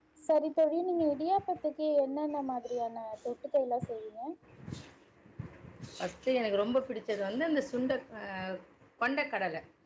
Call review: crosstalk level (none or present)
none